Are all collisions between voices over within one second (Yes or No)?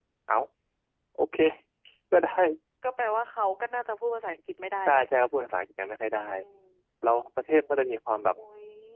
Yes